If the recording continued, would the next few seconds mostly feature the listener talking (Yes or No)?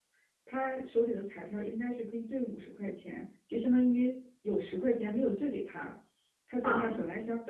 No